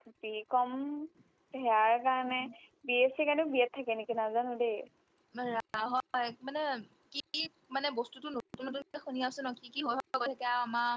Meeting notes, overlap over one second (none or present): none